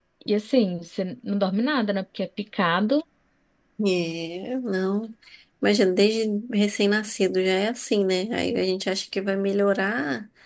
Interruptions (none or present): none